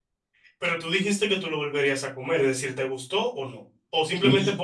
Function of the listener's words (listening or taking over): taking over